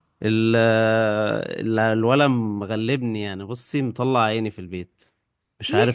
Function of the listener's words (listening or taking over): taking over